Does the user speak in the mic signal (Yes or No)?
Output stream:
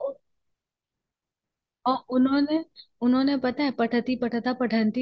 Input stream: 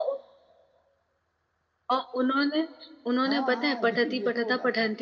Yes